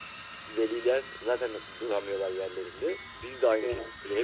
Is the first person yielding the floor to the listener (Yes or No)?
No